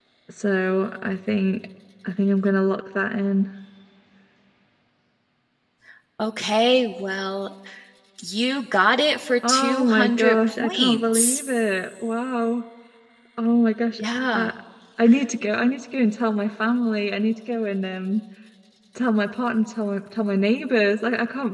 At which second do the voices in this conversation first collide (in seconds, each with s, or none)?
9.4 s